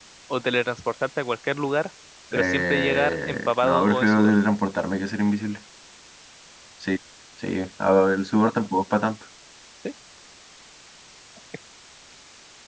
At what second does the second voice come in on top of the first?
2.3 s

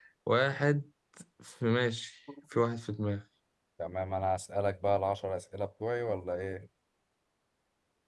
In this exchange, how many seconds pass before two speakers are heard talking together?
none

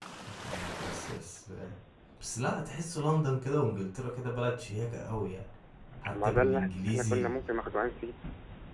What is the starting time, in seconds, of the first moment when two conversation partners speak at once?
6.1 s

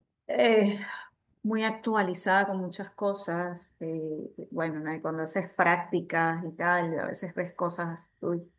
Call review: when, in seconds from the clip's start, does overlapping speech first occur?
none

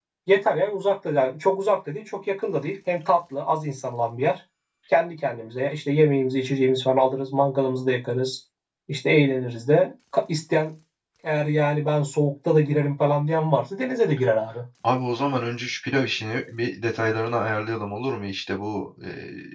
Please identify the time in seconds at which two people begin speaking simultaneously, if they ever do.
none

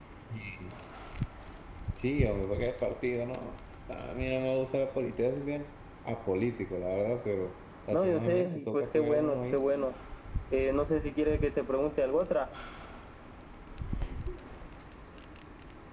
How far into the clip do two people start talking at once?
7.9 s

